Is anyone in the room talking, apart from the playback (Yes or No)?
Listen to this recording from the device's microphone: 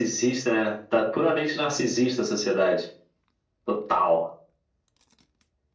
No